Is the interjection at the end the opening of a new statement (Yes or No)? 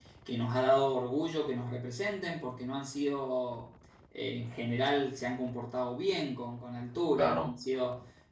No